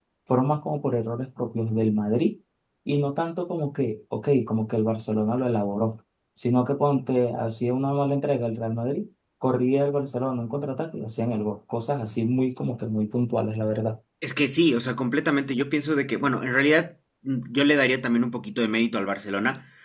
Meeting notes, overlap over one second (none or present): none